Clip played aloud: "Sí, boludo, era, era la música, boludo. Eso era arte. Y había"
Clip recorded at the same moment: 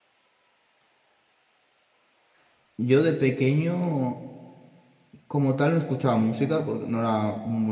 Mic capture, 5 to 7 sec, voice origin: user only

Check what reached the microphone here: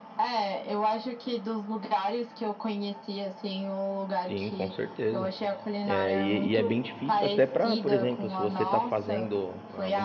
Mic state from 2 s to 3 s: echo only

